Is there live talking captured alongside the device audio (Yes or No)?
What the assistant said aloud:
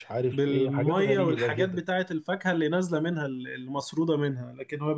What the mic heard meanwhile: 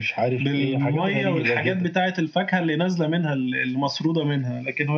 No